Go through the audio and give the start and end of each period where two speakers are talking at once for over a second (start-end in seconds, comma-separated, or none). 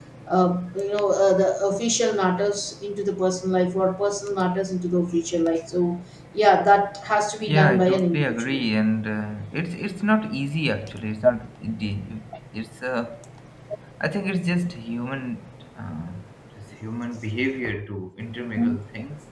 7.5-8.7